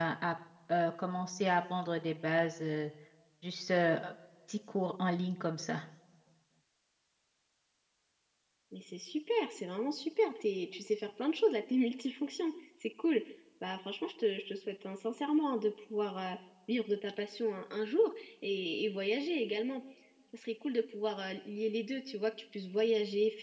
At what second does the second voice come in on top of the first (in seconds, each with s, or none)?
none